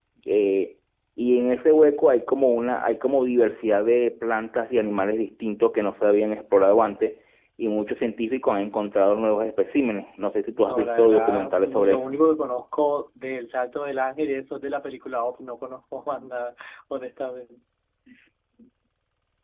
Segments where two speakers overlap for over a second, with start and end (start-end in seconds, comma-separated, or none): 10.6-12.0